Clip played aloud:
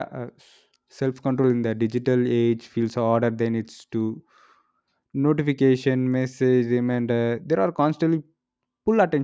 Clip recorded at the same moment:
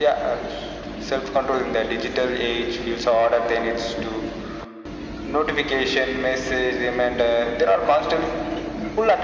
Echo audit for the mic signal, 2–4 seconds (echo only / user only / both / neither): echo only